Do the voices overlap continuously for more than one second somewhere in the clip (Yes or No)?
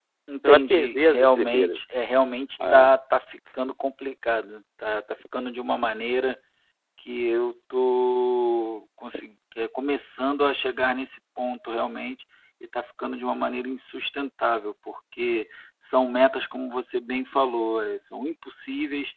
Yes